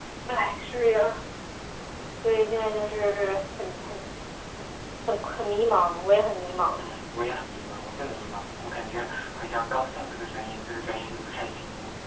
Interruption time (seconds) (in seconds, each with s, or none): none